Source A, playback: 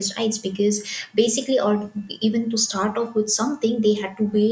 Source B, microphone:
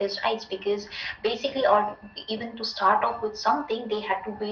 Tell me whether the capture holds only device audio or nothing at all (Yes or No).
Yes